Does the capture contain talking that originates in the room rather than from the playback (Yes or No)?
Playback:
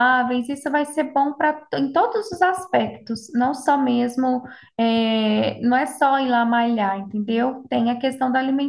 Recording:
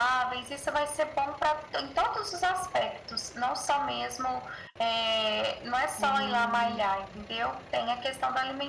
Yes